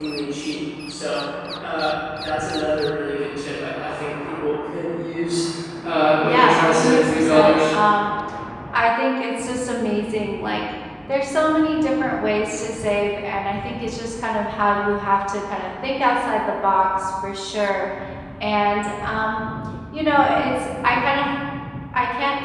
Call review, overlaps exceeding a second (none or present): present